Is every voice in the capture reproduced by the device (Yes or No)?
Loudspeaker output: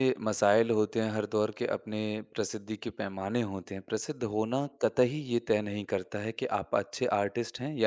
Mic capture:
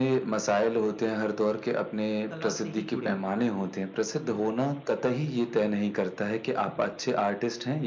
No